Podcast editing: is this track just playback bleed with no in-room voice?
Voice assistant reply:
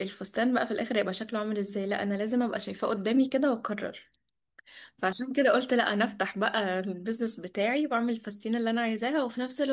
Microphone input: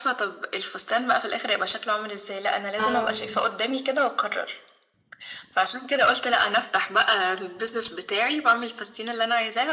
No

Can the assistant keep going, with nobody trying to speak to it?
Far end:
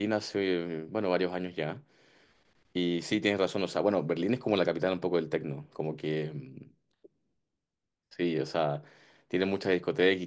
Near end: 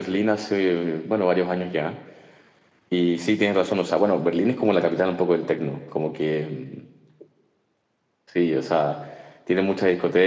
Yes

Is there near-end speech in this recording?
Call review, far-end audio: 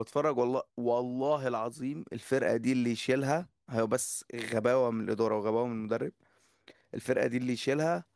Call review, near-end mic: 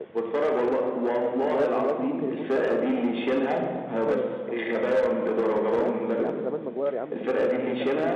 Yes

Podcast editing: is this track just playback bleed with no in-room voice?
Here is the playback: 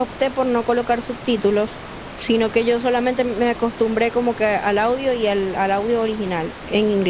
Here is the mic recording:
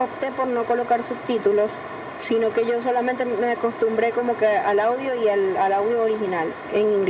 Yes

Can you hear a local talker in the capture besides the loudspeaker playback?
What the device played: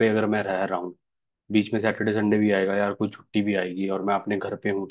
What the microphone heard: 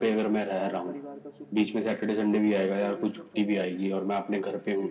Yes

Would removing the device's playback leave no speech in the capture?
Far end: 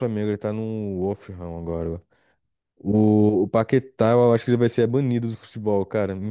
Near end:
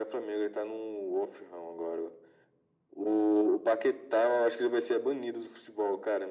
Yes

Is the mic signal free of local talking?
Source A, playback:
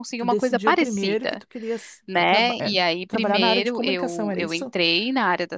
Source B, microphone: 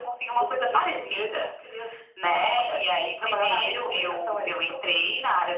Yes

